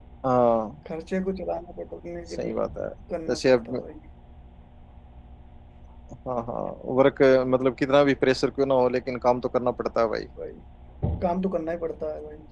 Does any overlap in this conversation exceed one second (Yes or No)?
No